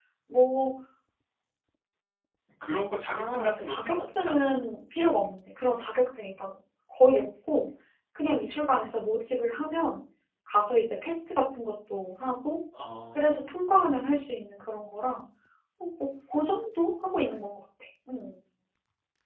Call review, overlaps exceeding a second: present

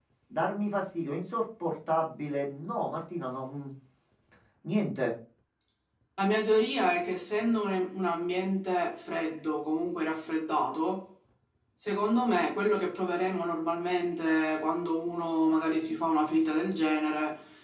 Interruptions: none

